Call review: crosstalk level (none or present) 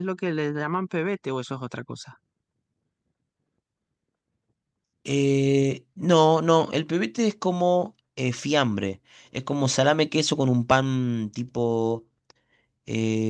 none